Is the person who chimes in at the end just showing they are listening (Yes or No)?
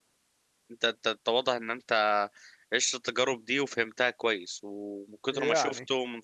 Yes